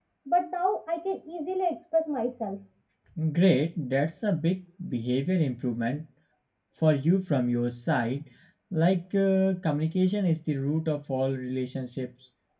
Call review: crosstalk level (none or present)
none